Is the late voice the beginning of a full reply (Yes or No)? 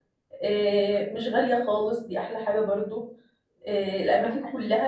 No